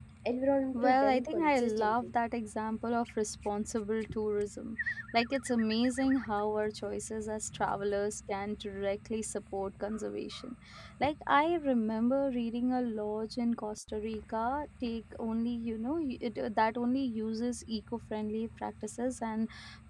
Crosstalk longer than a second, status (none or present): present